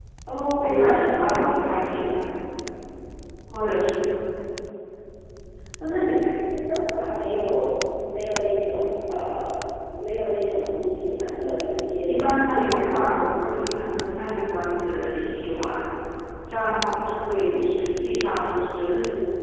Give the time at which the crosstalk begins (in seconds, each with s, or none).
0.6 s